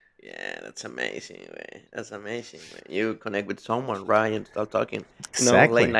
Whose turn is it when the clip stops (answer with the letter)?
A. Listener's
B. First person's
B